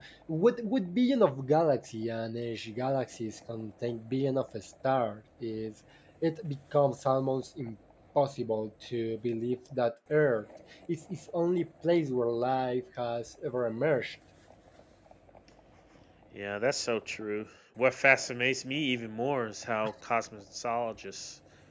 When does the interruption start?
none

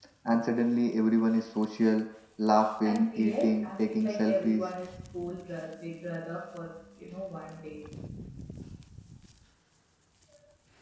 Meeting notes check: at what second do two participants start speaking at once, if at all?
2.8 s

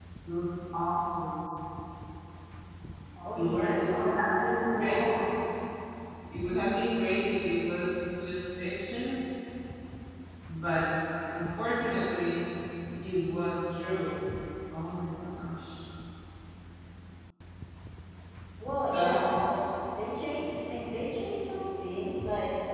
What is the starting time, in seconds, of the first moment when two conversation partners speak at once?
3.4 s

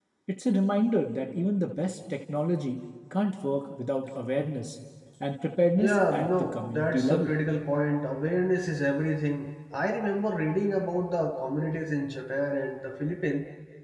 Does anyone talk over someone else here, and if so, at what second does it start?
5.8 s

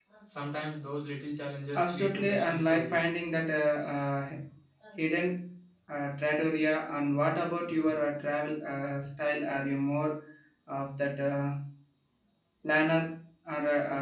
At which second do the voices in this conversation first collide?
1.8 s

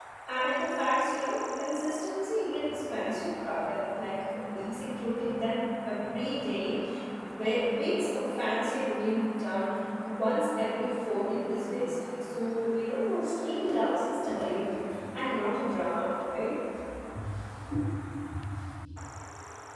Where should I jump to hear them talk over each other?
none

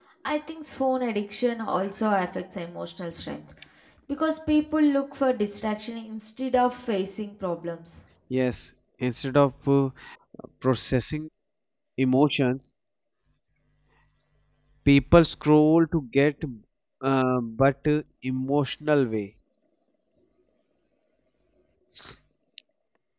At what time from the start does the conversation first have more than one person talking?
none

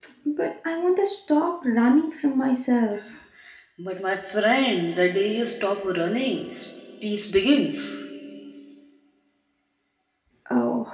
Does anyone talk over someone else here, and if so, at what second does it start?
none

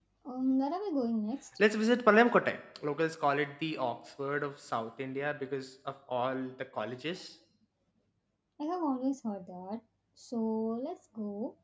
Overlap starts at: none

